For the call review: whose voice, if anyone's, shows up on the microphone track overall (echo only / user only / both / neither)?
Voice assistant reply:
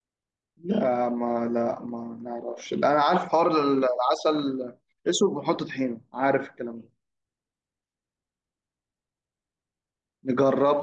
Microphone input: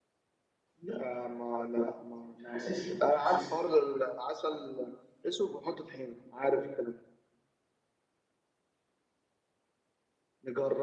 both